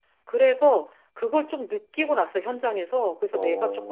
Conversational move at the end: listening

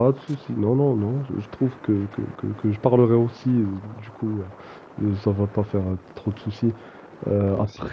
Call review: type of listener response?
listening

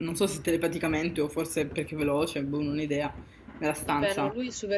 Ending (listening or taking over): taking over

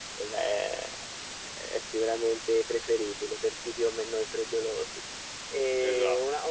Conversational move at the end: listening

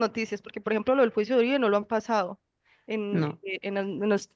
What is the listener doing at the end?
listening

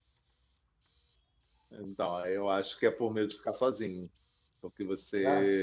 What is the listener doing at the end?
listening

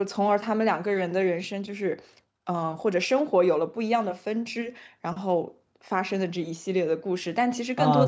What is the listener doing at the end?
taking over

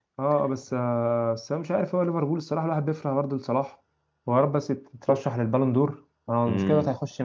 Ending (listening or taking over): taking over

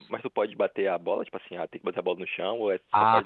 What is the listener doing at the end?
taking over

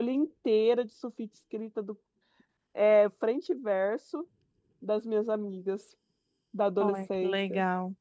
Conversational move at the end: taking over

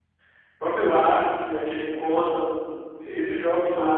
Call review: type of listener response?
taking over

